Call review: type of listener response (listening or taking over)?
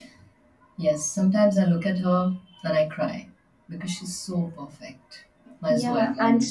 taking over